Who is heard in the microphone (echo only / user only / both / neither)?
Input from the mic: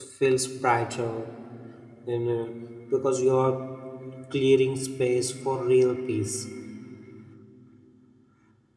user only